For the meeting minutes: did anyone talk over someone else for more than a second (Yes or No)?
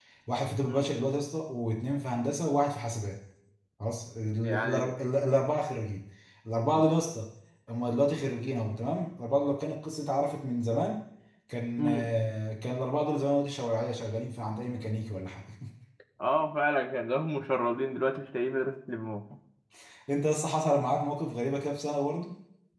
No